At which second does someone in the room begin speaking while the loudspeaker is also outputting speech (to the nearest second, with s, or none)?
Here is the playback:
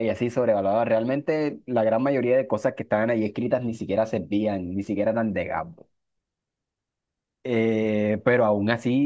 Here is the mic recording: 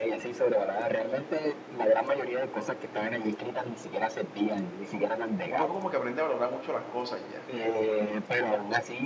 5 s